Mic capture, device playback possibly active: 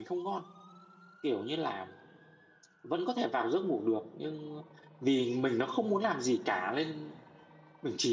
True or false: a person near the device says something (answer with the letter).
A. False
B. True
B